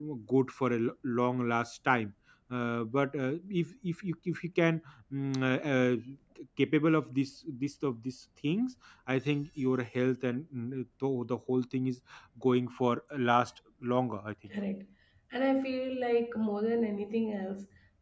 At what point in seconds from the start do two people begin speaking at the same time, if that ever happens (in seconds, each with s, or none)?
none